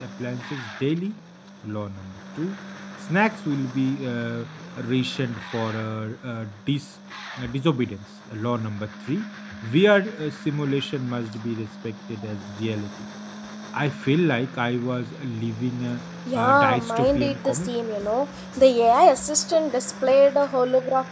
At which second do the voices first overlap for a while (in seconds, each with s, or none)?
16.3 s